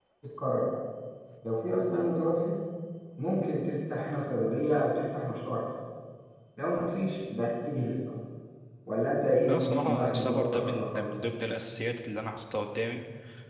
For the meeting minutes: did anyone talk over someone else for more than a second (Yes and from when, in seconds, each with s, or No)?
Yes, from 9.4 s